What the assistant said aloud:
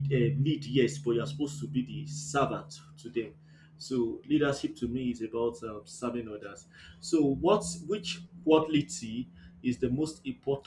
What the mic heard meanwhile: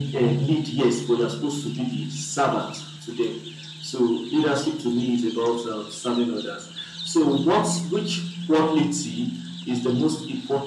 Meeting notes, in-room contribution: none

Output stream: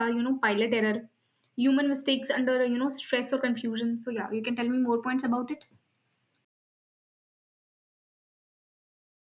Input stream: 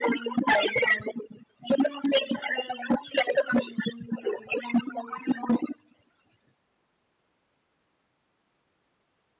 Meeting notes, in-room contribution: none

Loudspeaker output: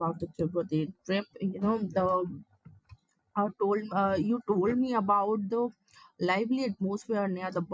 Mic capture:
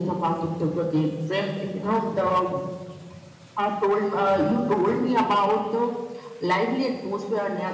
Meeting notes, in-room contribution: none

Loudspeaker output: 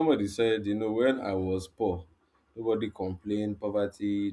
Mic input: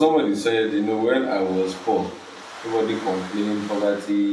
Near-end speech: none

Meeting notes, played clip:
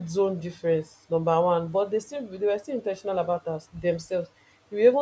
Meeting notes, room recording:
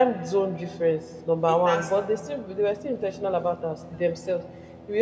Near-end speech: present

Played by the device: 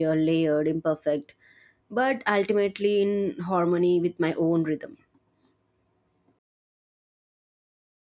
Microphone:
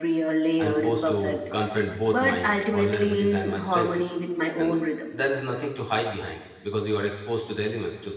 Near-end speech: present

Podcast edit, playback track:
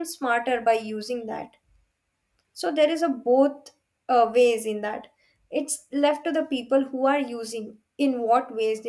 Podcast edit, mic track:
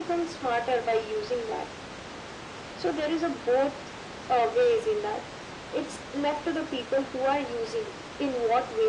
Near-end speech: none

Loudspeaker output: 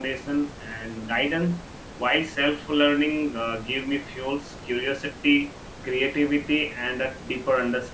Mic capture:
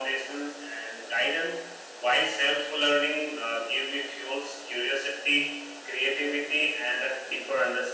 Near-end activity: none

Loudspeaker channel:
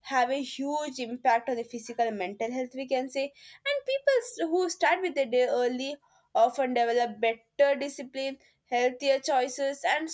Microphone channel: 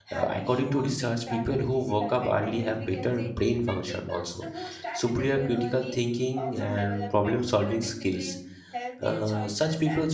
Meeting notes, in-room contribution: present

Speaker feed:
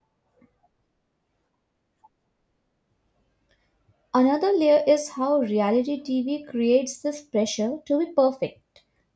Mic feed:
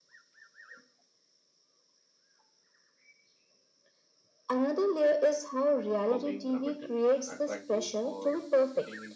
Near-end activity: present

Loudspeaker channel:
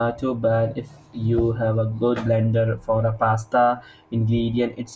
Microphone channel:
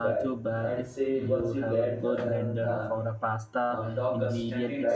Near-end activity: present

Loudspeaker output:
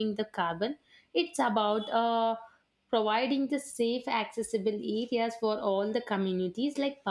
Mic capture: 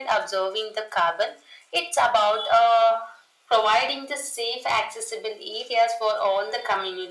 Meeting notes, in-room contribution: none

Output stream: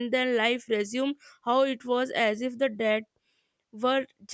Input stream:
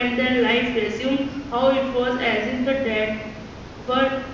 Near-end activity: none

